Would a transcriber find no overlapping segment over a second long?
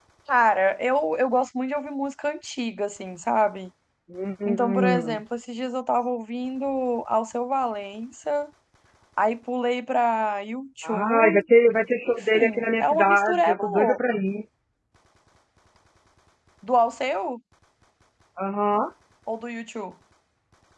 No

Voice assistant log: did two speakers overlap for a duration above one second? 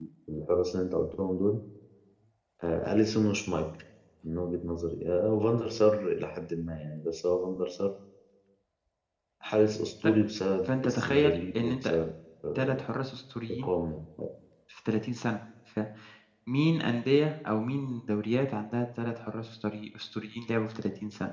Yes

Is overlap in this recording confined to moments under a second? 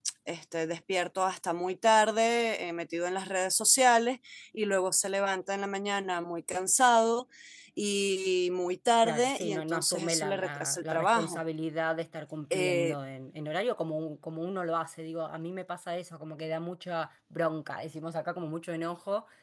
No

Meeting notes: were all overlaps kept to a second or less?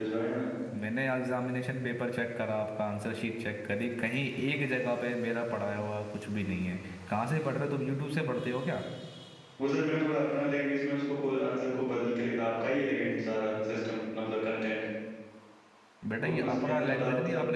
No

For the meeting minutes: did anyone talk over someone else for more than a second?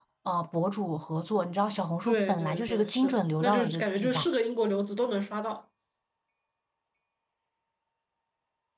Yes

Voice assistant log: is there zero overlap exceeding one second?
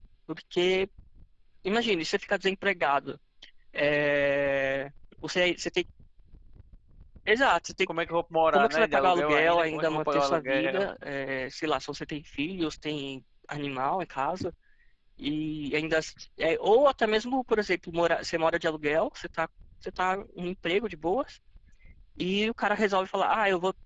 No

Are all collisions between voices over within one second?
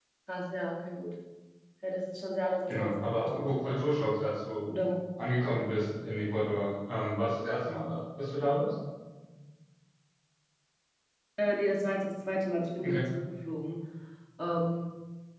No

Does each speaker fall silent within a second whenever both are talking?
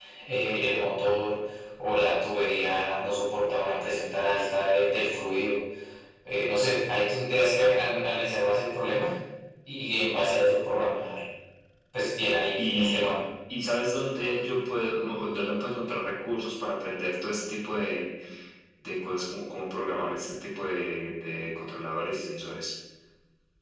Yes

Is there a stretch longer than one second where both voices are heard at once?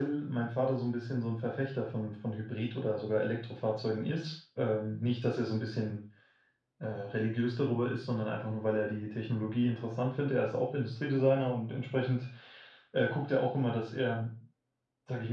No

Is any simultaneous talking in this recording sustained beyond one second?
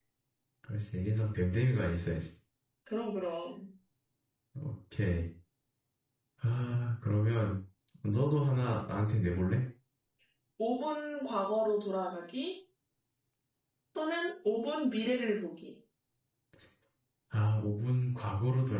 No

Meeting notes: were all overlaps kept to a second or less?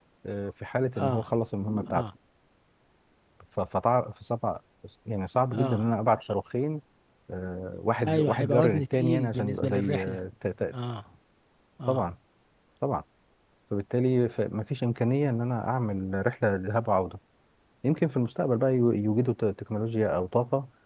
No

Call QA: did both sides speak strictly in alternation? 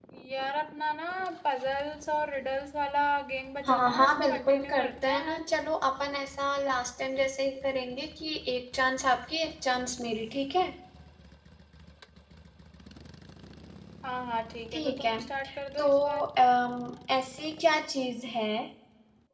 No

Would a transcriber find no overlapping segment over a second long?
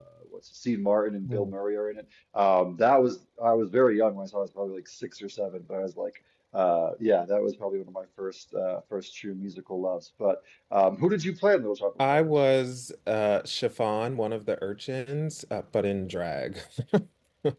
Yes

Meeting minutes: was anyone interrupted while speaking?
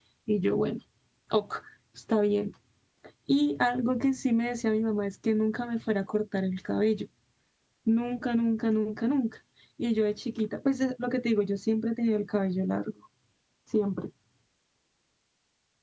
No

